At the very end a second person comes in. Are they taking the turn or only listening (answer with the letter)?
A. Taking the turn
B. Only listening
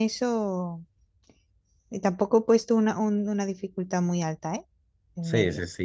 A